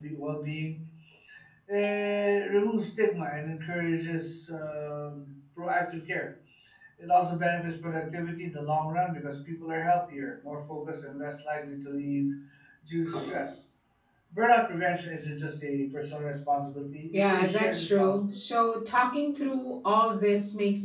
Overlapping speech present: Yes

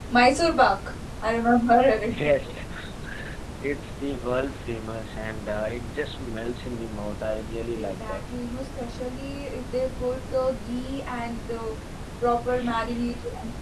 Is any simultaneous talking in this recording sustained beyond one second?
No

